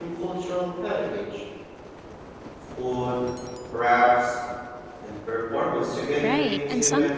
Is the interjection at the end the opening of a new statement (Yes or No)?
Yes